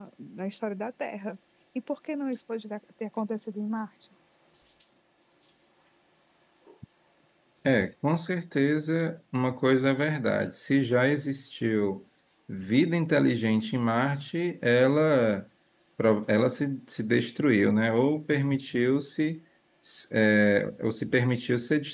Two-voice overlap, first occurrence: none

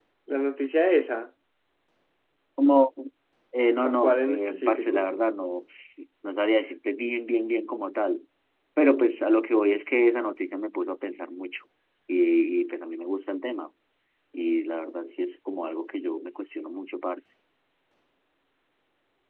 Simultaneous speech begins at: 4 s

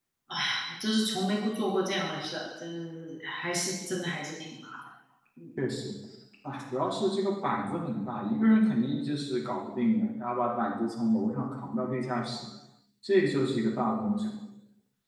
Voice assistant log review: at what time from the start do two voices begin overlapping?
none

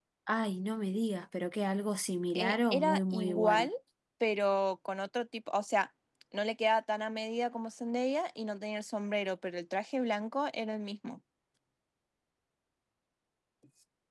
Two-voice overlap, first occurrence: 2 s

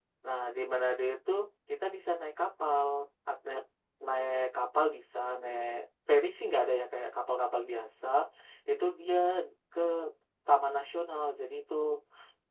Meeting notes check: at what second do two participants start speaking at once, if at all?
none

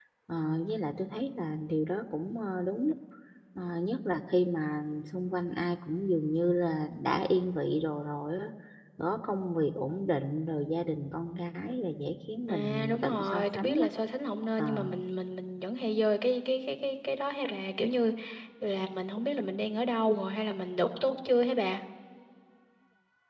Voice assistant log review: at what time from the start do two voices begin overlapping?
12 s

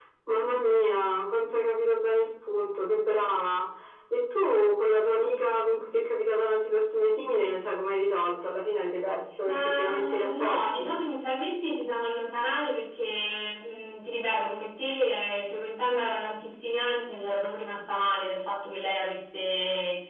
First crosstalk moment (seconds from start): 9 s

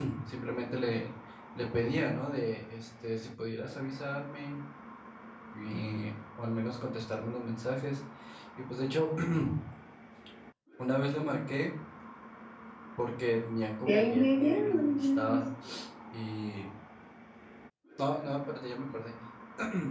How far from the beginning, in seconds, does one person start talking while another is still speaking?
14 s

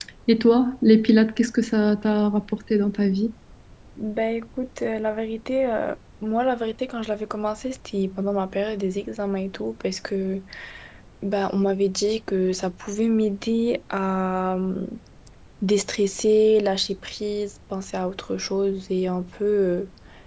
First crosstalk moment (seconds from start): none

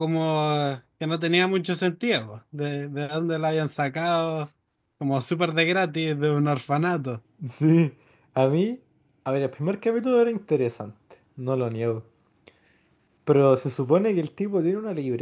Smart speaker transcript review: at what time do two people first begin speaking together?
none

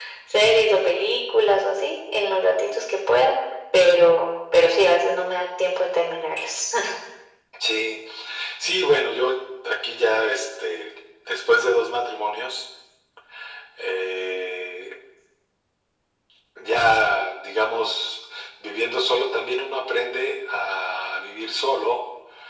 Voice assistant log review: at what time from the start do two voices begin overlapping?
none

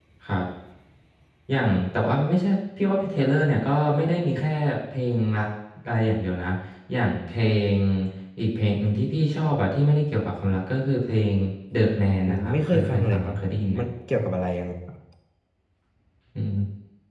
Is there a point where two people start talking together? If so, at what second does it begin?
12 s

